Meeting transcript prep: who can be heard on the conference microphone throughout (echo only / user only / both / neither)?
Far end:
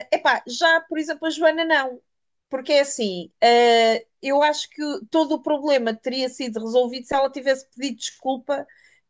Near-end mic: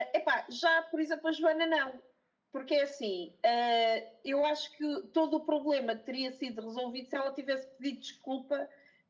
echo only